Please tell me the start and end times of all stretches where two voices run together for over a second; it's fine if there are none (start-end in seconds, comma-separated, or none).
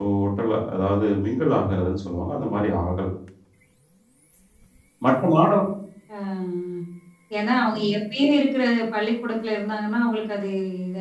none